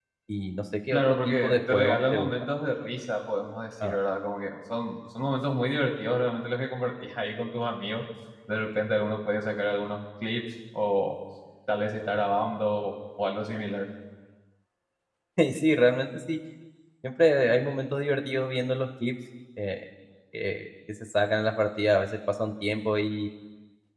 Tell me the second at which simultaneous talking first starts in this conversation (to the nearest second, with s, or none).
1 s